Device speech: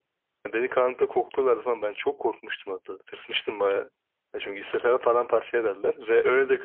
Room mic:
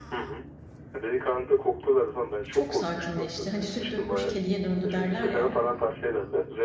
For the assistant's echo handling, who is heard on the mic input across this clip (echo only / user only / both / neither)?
both